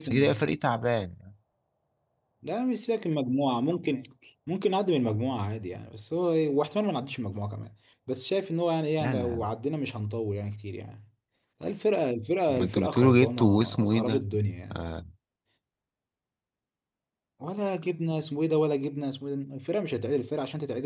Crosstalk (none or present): present